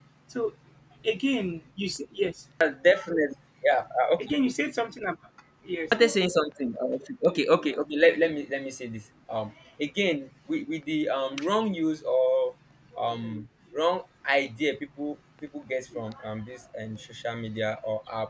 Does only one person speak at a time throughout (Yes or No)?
Yes